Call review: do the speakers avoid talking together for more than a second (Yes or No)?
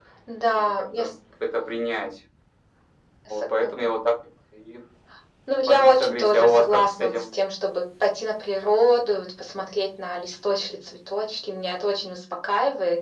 No